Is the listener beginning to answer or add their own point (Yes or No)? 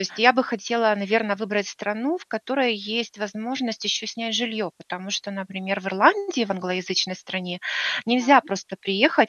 No